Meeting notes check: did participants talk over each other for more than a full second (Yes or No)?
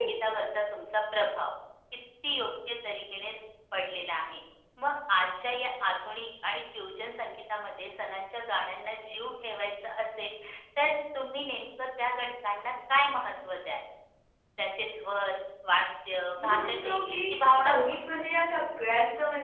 Yes